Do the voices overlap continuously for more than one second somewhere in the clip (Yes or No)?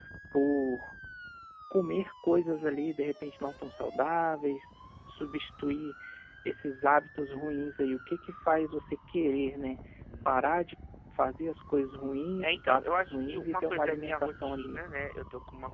Yes